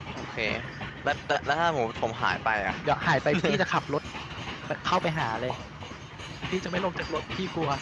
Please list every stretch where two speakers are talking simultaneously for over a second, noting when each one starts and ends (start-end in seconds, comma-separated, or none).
none